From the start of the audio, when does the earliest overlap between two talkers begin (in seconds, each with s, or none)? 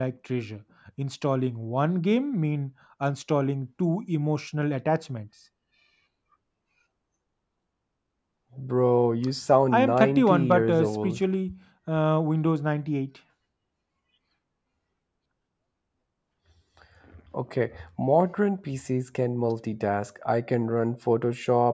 9.7 s